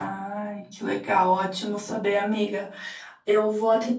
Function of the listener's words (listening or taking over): listening